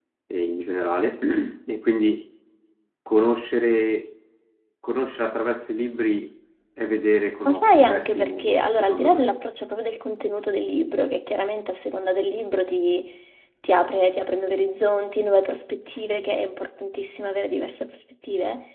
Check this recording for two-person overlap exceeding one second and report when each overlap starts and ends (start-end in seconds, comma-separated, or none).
7.5-9.3